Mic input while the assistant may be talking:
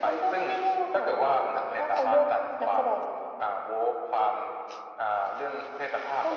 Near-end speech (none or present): none